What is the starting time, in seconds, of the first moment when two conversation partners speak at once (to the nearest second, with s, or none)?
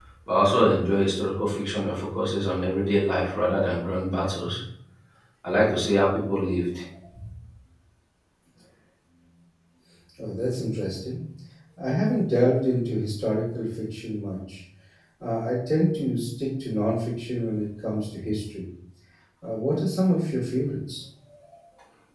none